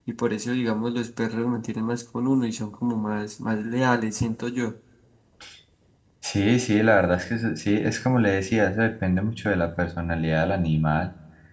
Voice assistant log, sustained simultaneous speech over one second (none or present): none